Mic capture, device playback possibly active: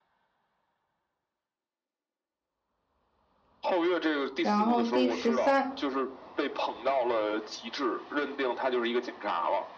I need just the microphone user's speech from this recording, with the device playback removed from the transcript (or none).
然后第十三，